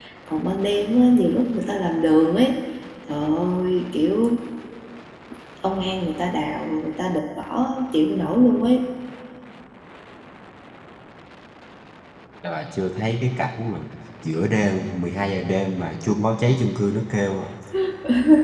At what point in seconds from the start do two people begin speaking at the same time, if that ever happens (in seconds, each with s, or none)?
none